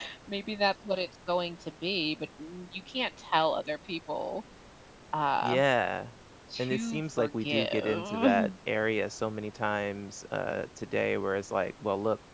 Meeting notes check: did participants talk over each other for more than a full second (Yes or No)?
Yes